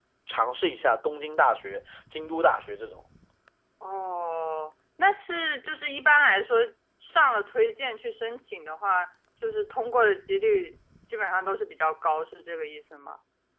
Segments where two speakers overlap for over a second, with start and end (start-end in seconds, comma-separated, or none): none